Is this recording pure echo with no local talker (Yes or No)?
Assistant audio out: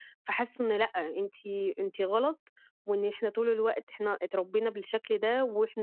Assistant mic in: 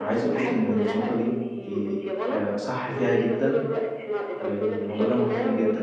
No